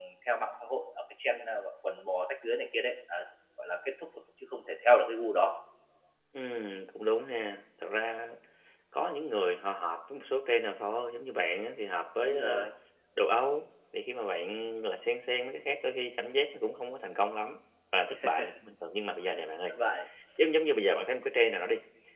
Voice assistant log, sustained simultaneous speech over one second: none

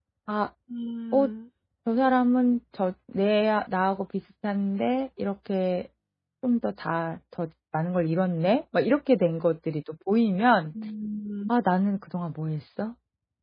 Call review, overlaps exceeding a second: none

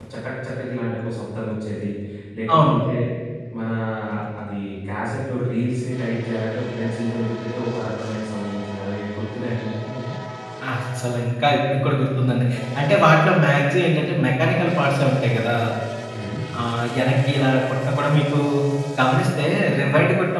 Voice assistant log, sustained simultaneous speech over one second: none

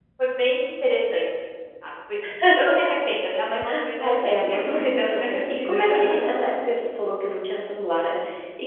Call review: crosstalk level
present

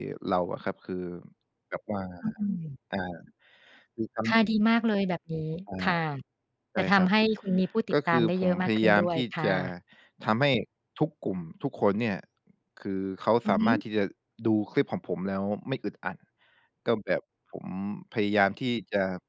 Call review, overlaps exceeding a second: present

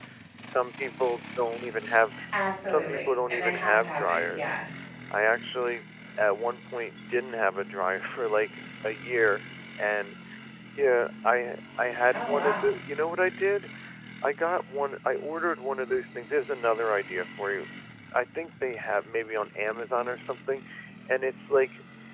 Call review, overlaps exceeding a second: present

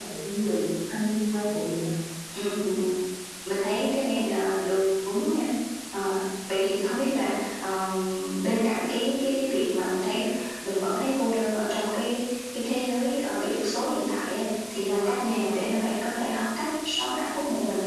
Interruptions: none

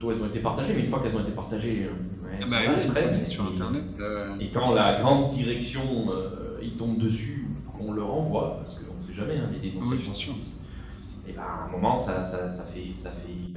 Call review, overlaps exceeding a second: present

